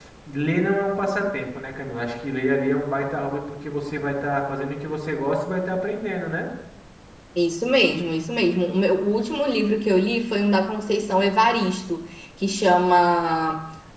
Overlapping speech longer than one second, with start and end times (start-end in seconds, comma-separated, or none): none